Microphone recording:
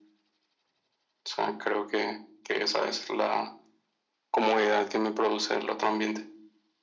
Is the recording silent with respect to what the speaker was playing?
No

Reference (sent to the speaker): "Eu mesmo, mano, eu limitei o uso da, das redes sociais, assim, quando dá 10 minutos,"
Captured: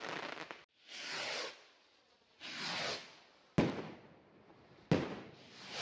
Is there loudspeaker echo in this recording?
No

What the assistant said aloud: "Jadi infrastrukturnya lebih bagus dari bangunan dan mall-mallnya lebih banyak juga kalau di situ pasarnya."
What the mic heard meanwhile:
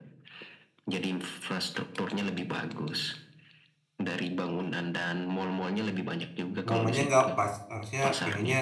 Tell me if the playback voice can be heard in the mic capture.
Yes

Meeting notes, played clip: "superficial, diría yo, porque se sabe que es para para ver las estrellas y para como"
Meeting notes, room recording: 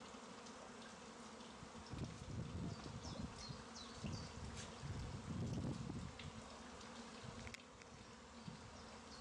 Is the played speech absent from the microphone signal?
Yes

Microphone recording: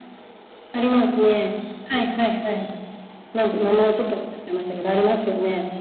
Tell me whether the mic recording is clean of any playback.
No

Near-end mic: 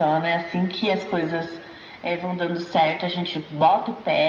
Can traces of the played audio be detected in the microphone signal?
Yes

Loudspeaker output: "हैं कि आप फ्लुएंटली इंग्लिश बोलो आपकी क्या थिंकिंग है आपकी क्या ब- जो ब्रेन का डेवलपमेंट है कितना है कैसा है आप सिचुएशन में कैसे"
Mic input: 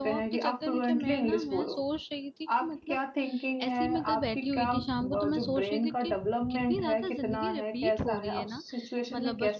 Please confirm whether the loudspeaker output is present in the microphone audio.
Yes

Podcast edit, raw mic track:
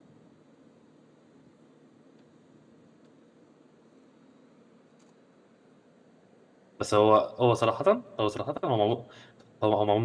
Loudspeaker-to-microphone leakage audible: No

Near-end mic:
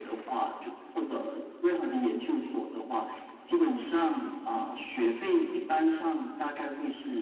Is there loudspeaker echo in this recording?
Yes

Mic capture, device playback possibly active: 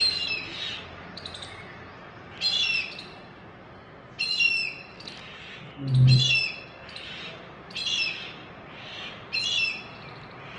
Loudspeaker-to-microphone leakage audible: No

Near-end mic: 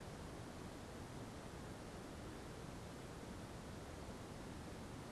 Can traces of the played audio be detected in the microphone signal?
No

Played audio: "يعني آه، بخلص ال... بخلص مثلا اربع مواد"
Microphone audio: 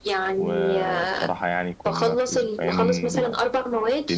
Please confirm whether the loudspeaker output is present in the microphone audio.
Yes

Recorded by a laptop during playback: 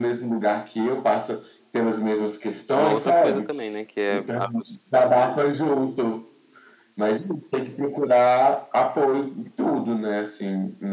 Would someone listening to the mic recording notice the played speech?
Yes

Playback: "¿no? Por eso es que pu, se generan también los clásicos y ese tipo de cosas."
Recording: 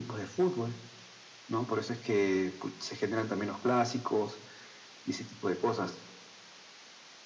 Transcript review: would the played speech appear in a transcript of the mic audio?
Yes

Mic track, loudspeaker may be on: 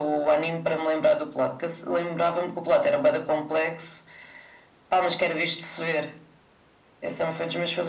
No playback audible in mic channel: No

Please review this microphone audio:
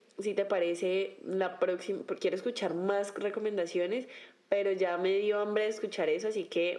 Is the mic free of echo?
No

